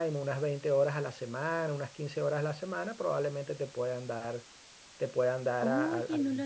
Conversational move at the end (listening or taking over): taking over